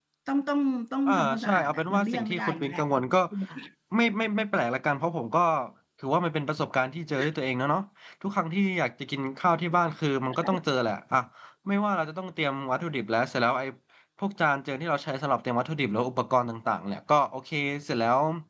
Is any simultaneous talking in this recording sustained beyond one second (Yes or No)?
Yes